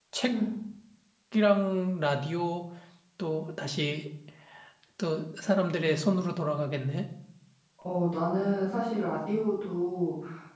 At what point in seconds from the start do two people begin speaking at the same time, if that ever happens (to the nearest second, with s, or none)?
none